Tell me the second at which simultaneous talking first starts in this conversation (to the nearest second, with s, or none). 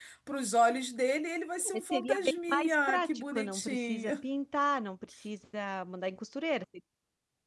2 s